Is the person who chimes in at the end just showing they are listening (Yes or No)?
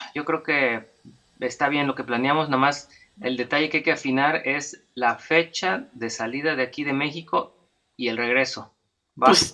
No